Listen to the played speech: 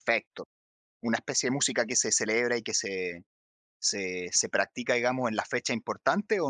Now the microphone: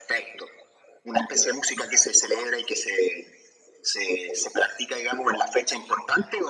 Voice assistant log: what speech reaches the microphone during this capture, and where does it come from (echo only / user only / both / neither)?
echo only